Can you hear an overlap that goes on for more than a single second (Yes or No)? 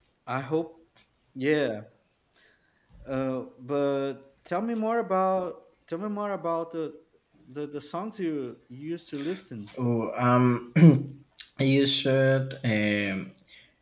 No